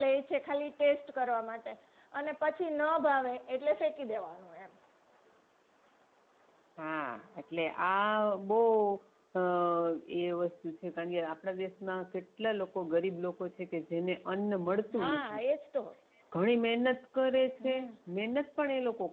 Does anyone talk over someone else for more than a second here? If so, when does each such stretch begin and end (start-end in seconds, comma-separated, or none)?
none